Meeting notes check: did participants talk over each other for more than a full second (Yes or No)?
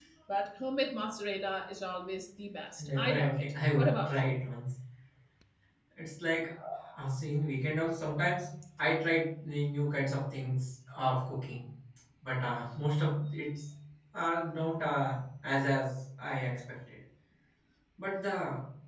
Yes